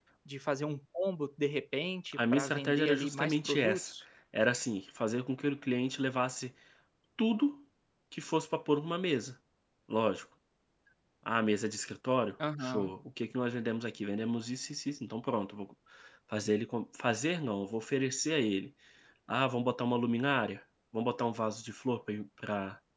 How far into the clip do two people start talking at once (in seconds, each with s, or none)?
2.1 s